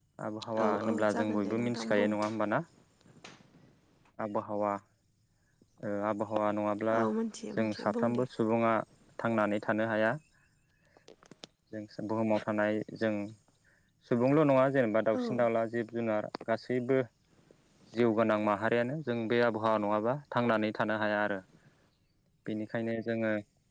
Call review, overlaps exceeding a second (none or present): present